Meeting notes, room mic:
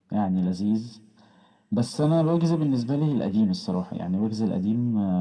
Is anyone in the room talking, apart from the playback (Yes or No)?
No